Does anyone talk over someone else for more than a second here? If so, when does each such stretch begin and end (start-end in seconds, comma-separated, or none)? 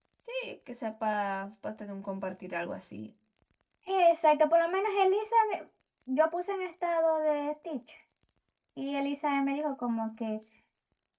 none